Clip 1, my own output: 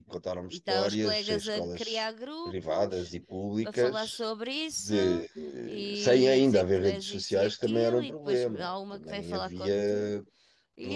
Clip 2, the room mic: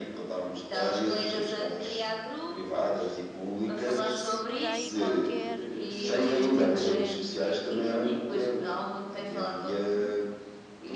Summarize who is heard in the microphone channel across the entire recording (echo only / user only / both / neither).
both